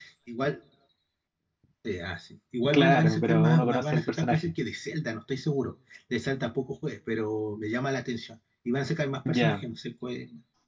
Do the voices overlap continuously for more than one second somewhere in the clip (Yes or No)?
Yes